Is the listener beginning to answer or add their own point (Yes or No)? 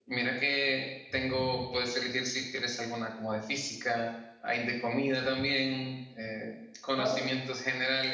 No